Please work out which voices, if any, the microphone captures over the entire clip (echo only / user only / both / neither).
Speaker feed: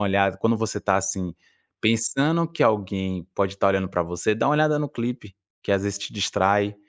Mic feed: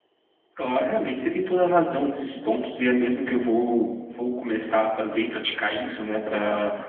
user only